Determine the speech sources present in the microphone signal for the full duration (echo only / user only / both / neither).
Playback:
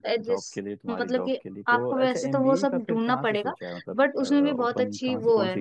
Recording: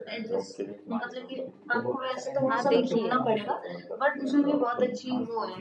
both